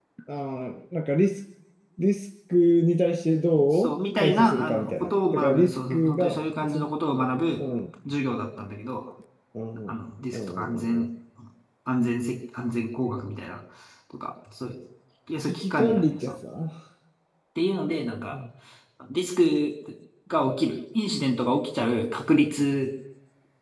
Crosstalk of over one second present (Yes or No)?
Yes